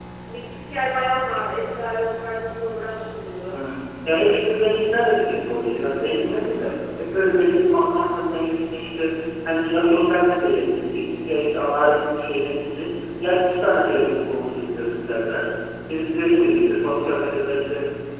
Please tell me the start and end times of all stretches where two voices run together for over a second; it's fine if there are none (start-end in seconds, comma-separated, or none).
none